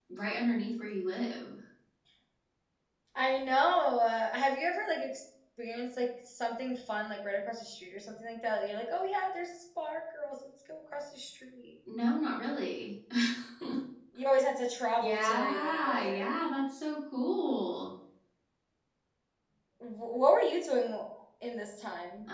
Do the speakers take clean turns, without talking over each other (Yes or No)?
No